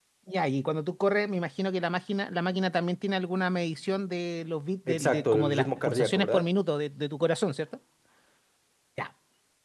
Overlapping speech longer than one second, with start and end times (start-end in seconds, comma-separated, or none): 4.9-6.5